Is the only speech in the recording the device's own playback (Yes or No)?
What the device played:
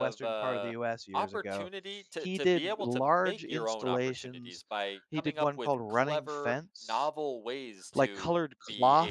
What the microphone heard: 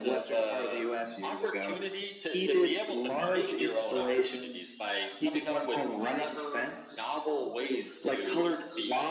Yes